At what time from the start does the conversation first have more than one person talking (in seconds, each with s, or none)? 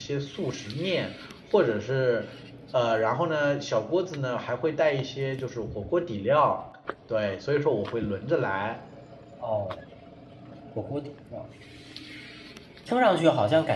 none